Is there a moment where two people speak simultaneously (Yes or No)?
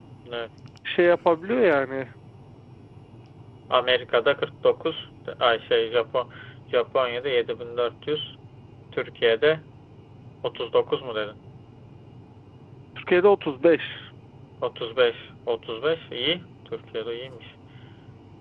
No